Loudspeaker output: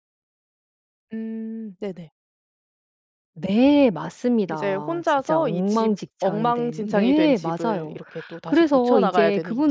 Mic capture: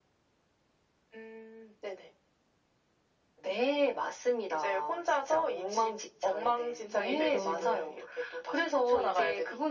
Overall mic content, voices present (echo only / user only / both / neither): both